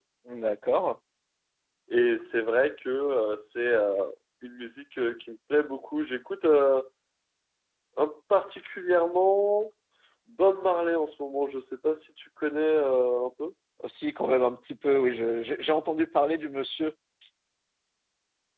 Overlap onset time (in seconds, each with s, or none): none